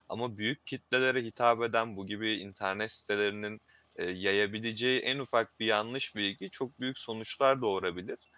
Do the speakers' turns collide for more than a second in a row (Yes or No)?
No